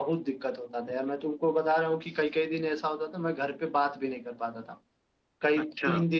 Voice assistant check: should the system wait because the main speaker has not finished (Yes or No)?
Yes